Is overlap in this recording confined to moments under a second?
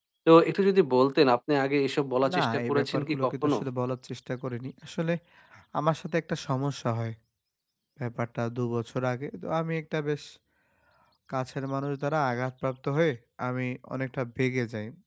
No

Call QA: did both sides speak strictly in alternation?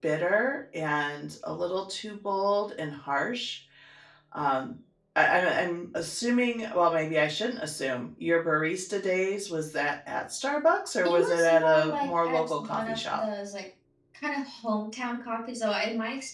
No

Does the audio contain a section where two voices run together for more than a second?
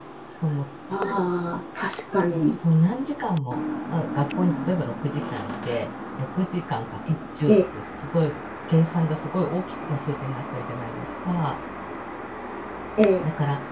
No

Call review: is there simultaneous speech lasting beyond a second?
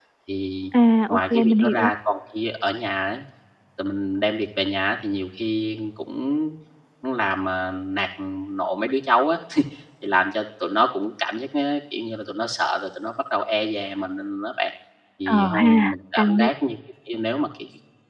Yes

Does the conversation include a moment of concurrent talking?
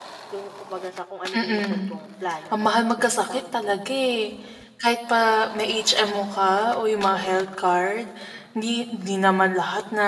Yes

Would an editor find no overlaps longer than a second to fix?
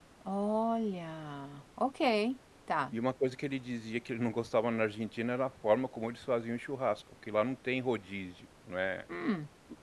Yes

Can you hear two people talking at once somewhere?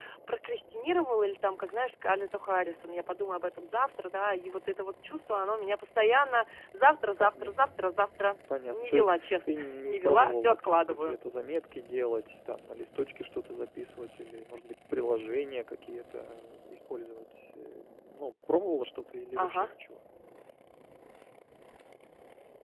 Yes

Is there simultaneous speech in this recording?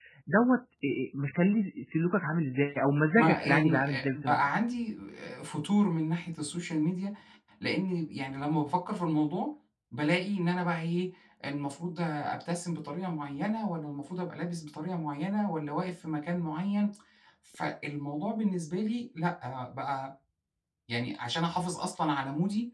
Yes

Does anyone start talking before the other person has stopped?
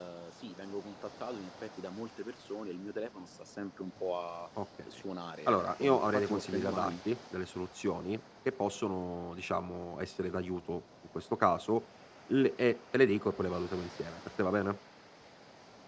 Yes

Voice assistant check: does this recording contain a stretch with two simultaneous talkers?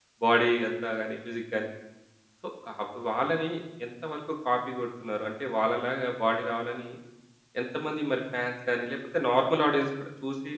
No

